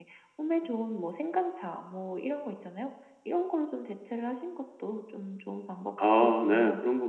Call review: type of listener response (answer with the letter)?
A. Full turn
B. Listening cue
A